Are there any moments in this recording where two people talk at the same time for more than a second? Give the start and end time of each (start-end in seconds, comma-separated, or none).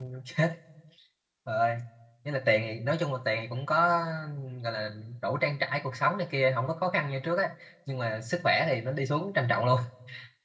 none